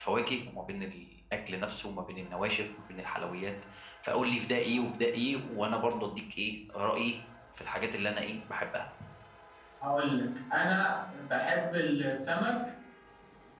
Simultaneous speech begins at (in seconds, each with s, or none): none